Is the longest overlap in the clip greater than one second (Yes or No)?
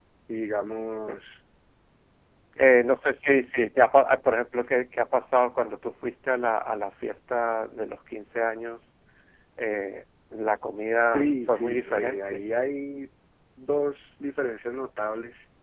Yes